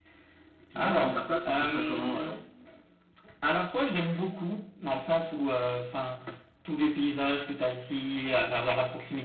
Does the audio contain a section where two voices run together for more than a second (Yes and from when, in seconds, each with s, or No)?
Yes, from 0.8 s